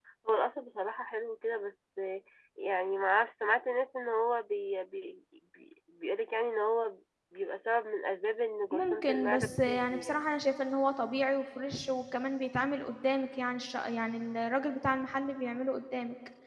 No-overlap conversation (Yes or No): No